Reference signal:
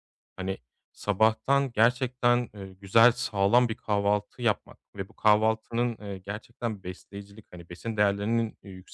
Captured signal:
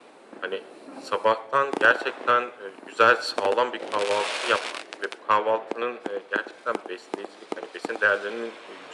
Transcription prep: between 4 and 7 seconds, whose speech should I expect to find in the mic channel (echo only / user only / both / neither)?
echo only